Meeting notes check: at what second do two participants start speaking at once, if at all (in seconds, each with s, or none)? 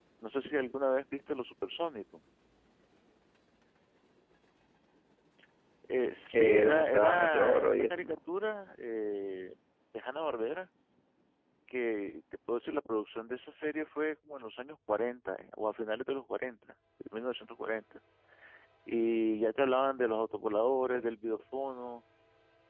6.3 s